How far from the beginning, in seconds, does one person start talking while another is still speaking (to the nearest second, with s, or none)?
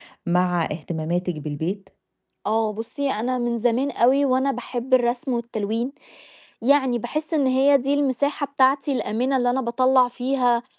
none